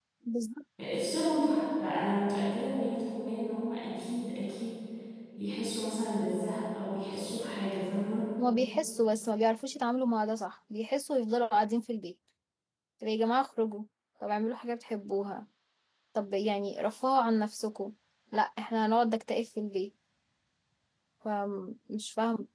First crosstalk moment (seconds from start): none

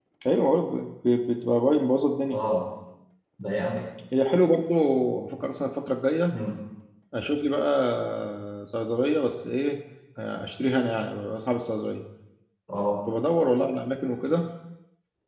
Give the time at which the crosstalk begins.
none

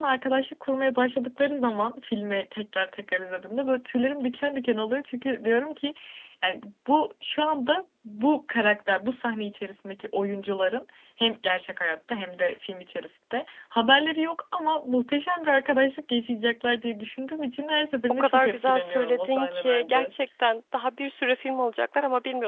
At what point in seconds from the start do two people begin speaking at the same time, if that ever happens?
18.1 s

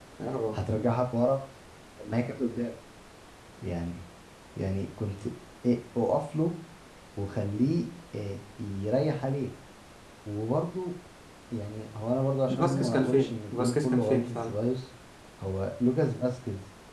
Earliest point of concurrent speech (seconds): 12.5 s

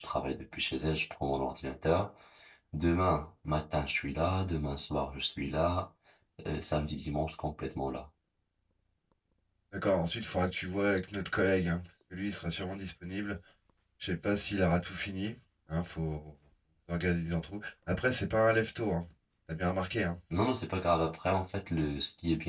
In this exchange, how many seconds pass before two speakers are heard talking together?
none

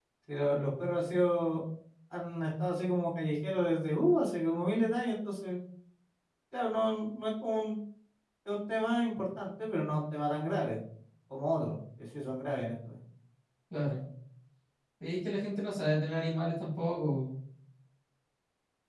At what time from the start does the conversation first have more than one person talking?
none

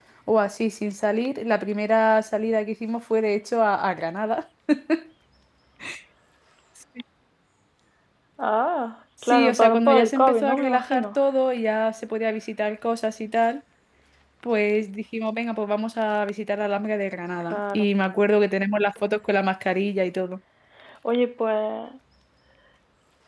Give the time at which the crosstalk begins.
9.3 s

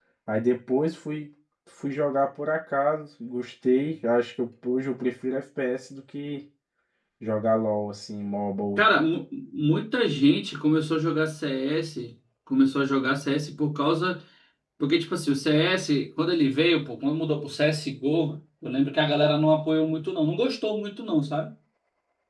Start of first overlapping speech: none

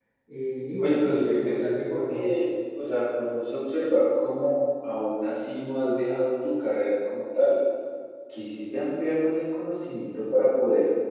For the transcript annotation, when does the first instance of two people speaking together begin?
0.8 s

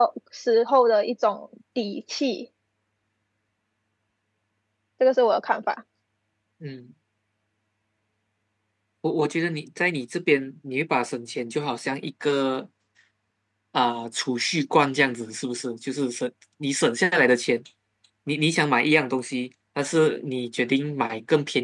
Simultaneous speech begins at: none

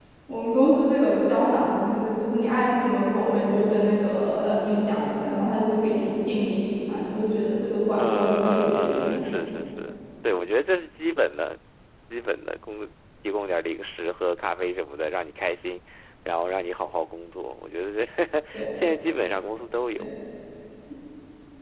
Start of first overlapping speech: 7.9 s

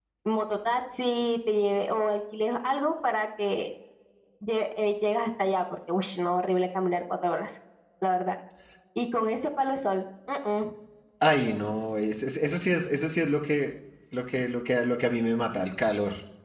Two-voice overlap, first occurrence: none

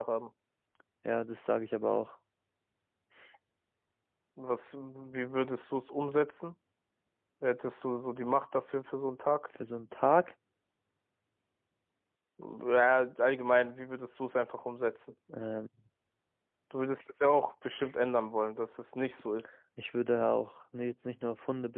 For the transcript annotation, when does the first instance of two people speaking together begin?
none

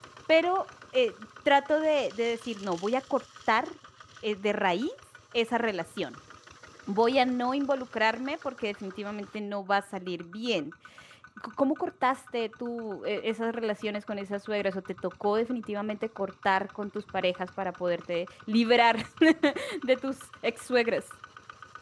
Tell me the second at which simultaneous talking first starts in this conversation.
none

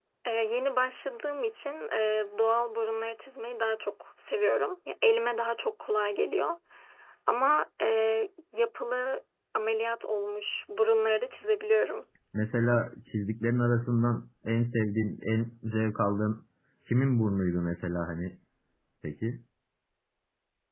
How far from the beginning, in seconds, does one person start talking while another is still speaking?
none

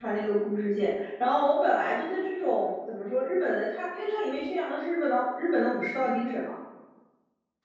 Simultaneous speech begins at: none

